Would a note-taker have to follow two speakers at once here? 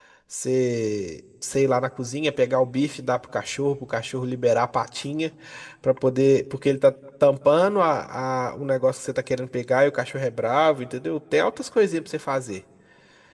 No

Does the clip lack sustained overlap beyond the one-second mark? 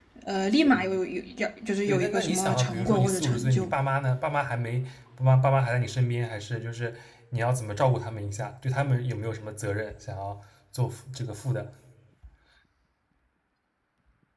No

